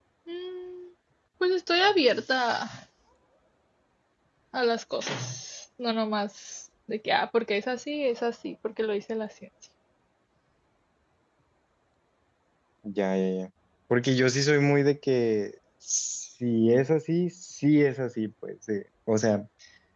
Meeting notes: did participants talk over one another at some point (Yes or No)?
No